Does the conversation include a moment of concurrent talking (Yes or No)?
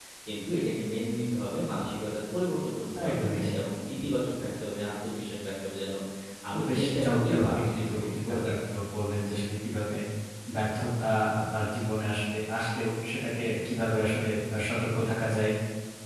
Yes